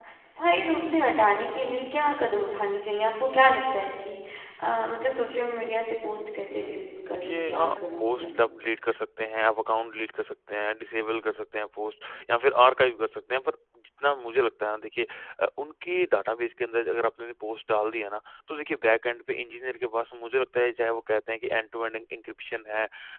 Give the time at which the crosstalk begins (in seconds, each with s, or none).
6.5 s